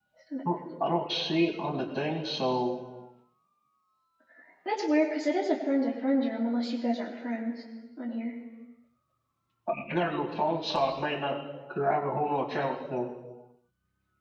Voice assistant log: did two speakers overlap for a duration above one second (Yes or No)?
No